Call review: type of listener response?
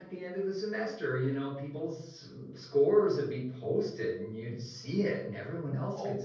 taking over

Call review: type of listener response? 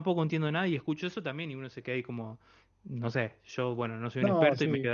listening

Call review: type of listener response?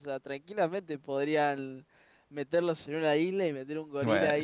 taking over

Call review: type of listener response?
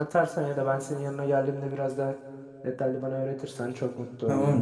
taking over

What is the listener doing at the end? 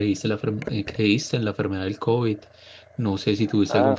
listening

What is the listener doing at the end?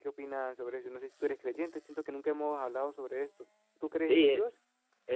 taking over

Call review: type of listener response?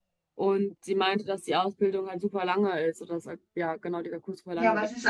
taking over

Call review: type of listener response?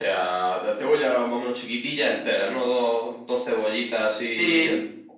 taking over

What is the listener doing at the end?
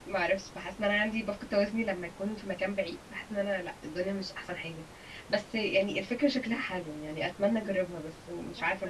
taking over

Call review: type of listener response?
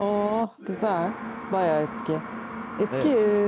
listening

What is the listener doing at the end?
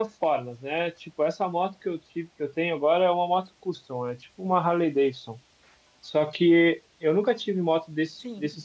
listening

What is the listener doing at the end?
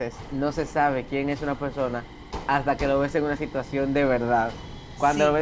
listening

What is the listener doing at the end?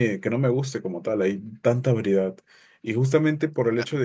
listening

